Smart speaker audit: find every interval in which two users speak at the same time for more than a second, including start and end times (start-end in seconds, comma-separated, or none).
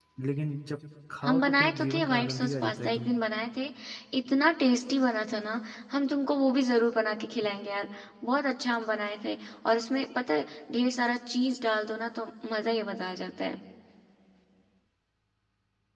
1.2-3.1